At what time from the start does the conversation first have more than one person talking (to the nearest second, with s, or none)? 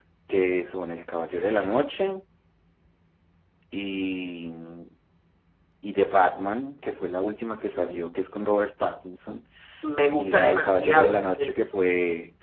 10 s